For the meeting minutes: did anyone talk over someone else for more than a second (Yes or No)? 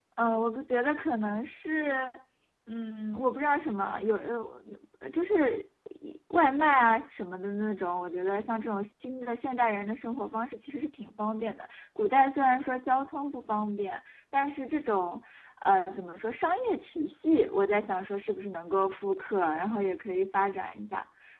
No